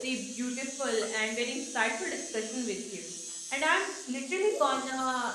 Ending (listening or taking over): listening